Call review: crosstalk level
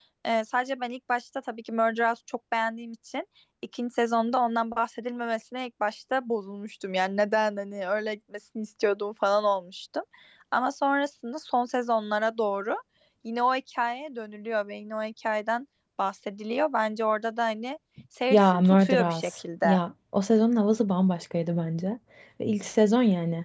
present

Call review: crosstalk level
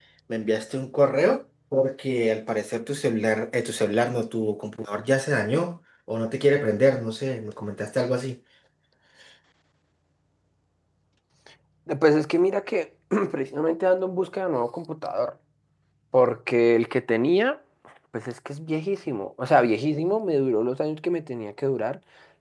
none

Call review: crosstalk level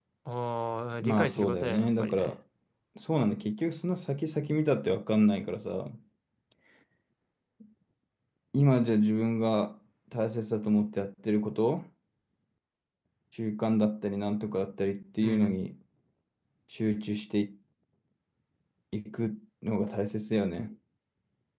present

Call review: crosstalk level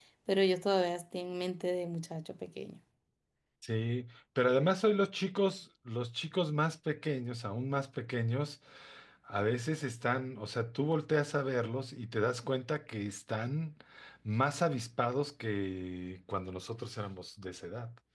none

